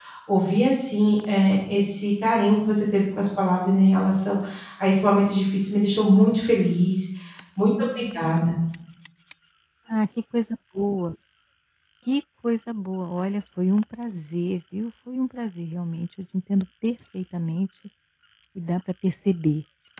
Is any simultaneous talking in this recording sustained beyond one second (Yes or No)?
No